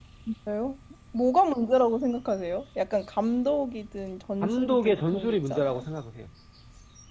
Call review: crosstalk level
present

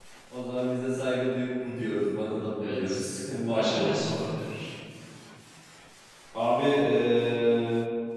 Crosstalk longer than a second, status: none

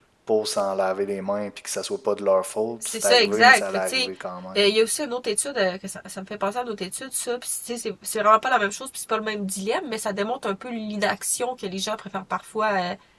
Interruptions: present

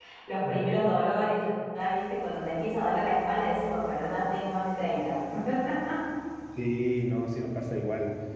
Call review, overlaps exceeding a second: none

